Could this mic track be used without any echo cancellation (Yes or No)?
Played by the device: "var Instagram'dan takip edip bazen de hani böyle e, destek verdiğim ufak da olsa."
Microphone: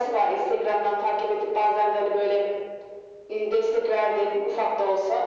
No